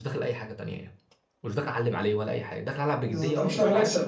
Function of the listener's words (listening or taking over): taking over